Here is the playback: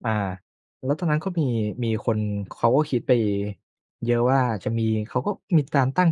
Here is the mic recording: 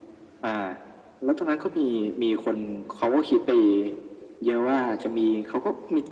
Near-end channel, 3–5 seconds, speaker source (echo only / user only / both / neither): echo only